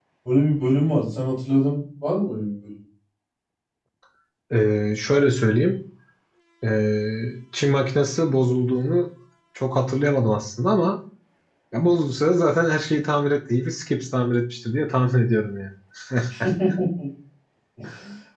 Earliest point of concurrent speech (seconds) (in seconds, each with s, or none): none